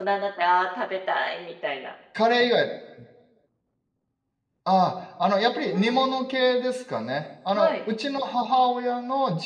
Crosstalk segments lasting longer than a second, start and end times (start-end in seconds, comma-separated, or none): none